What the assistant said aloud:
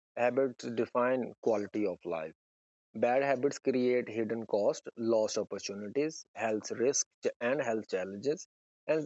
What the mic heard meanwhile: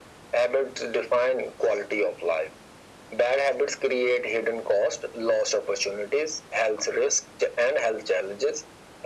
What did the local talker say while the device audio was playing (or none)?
none